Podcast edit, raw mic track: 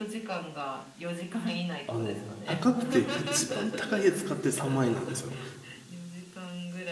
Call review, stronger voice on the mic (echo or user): user